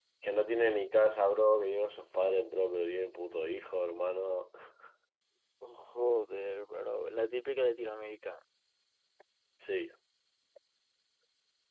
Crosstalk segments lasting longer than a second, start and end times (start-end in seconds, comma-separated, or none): none